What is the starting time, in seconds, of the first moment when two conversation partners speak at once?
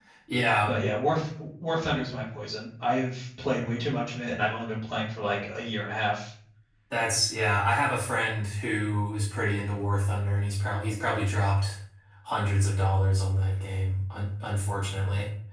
none

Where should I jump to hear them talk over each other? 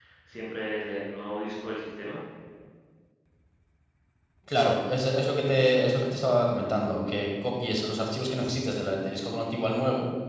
none

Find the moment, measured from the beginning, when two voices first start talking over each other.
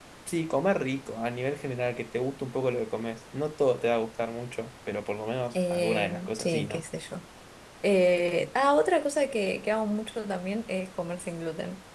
6 s

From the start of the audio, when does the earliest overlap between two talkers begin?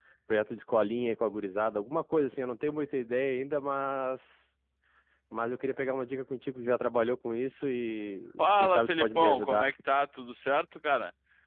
8 s

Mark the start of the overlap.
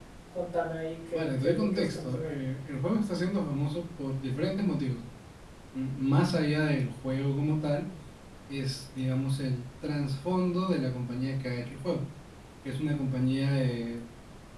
1 s

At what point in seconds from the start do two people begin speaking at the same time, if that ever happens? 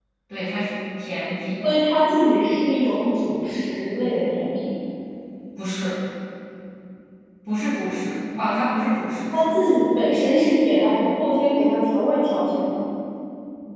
none

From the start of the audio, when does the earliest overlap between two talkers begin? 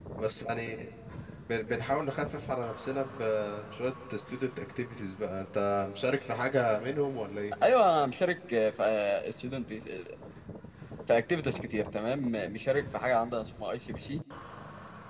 none

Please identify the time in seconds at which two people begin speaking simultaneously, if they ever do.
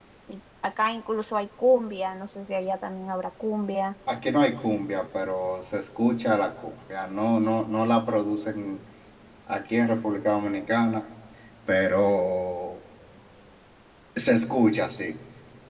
none

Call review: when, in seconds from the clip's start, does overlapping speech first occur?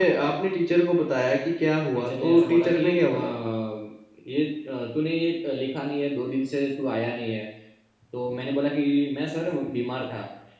2 s

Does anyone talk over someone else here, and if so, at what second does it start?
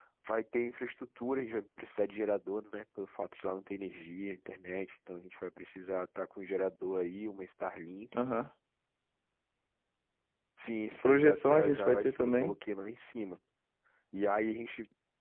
11 s

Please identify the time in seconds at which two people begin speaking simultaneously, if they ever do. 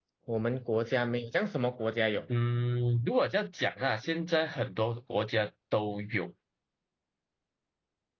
none

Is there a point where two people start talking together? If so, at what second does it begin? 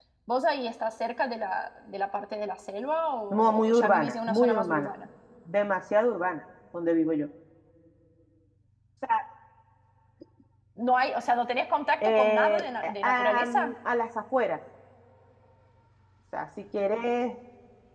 3 s

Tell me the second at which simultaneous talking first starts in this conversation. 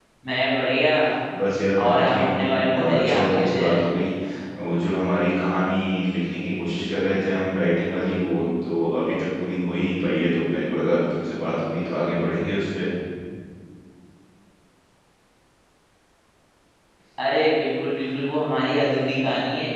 2 s

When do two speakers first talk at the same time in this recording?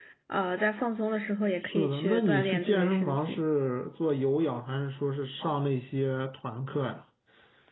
2 s

